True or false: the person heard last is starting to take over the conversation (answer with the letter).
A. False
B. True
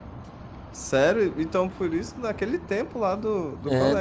B